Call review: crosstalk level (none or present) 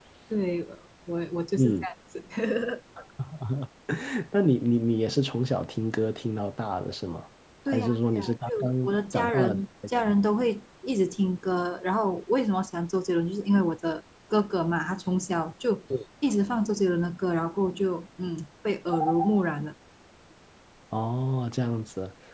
present